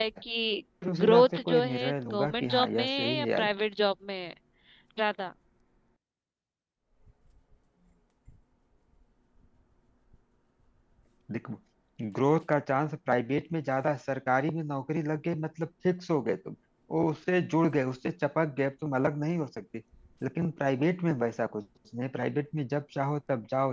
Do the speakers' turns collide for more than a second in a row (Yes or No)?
Yes